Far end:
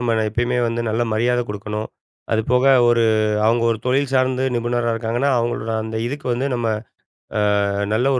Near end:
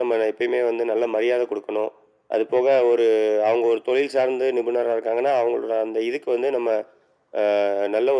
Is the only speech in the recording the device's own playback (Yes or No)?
Yes